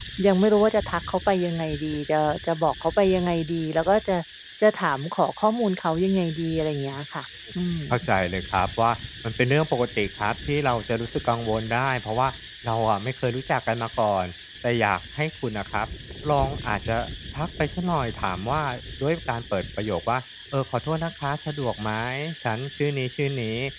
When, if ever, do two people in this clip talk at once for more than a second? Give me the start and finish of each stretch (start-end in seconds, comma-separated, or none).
none